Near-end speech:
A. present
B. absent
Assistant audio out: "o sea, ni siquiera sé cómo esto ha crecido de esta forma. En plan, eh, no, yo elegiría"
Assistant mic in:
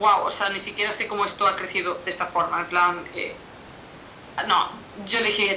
B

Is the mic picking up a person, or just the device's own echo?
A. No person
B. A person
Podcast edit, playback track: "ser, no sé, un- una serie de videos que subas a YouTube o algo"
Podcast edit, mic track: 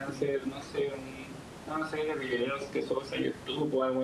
A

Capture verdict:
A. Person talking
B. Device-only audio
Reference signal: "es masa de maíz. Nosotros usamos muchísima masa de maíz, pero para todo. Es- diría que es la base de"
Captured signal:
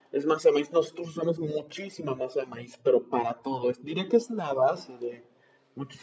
B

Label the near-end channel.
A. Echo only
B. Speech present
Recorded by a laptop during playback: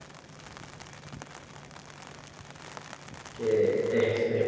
B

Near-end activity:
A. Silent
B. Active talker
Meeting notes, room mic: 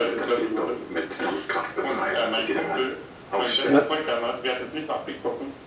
B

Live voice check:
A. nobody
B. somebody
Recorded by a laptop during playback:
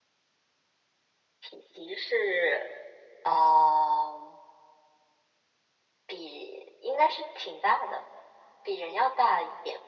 A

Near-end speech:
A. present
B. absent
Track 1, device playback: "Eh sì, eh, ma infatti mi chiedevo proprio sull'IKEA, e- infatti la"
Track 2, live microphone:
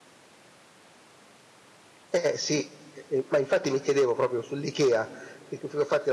B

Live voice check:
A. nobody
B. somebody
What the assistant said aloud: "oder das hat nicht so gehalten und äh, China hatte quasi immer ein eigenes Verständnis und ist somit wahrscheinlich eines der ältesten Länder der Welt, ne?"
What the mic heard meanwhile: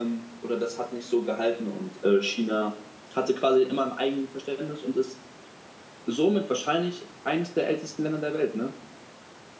A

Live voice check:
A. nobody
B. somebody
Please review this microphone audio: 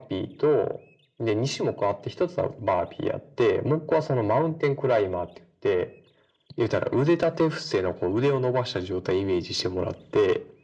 A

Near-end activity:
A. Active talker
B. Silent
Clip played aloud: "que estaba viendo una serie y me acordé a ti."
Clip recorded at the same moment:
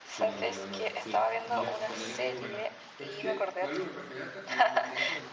A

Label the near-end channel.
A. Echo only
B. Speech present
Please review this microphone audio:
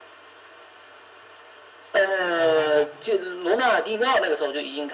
B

